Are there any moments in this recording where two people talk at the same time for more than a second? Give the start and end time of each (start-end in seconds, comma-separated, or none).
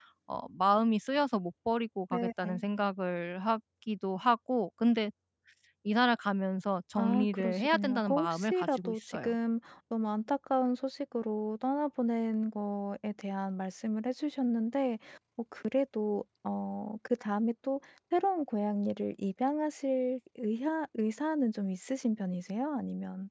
7.0-9.3